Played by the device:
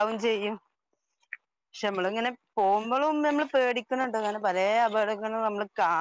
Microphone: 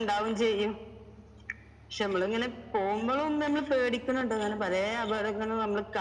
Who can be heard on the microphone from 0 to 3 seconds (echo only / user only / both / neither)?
echo only